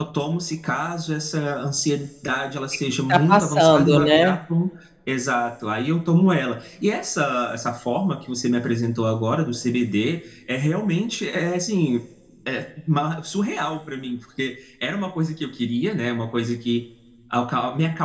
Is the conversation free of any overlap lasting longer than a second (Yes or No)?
No